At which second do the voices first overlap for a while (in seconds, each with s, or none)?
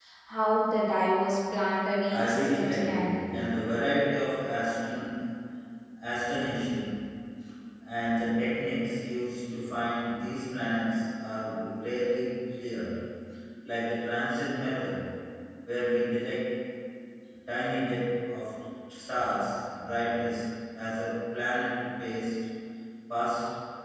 2.1 s